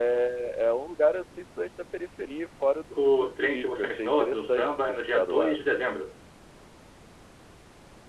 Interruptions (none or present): present